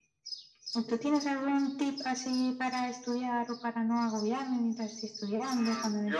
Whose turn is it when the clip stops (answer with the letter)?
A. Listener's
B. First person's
A